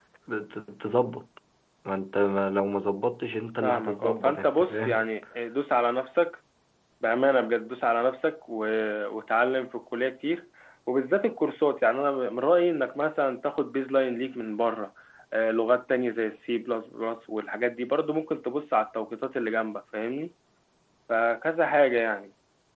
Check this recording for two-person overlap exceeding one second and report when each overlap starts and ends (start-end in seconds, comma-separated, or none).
3.6-4.9